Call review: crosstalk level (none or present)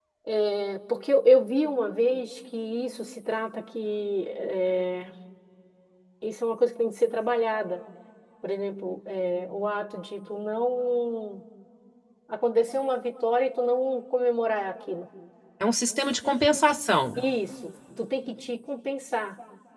none